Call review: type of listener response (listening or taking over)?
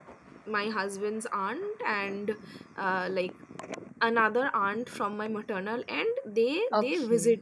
listening